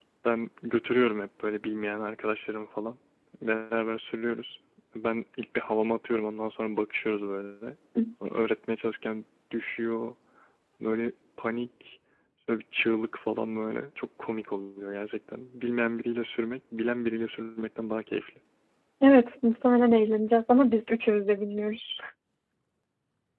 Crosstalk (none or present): none